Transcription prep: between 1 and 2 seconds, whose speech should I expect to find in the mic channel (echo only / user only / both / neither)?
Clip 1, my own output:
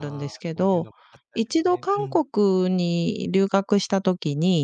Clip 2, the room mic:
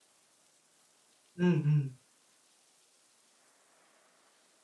user only